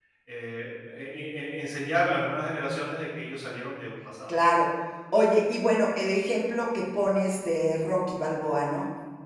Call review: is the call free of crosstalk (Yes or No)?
Yes